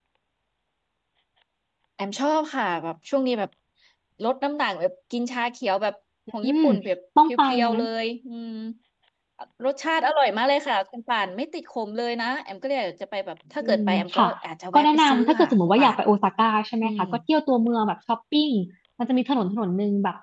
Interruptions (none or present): present